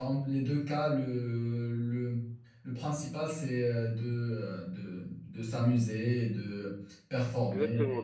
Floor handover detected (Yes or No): Yes